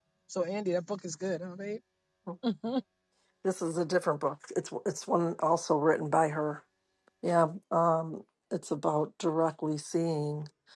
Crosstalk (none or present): none